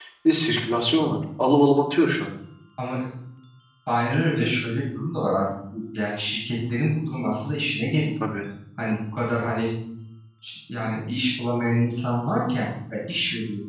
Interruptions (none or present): none